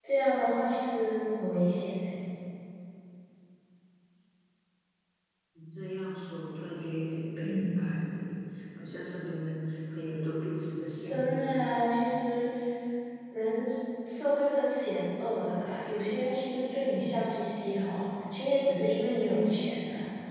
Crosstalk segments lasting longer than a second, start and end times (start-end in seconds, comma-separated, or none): none